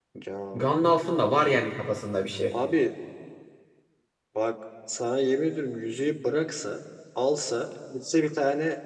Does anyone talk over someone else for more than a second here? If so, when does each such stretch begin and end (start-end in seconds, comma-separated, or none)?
none